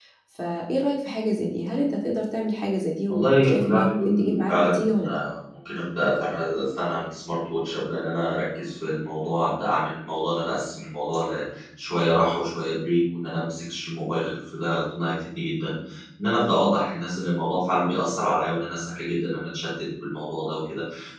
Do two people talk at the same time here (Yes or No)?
Yes